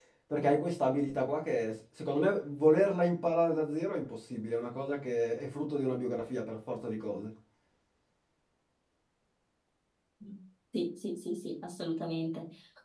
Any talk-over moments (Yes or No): No